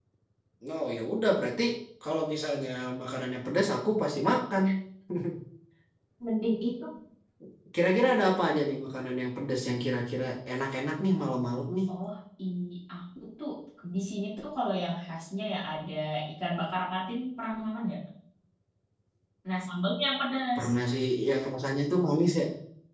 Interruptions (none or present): none